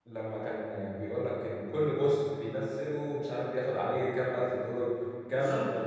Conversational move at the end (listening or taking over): listening